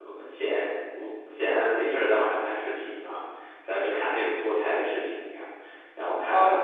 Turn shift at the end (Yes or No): Yes